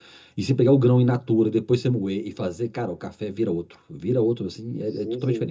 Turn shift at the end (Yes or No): Yes